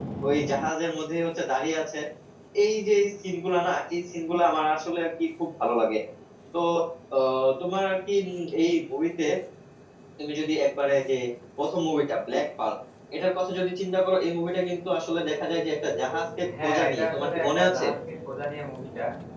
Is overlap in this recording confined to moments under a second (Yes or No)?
No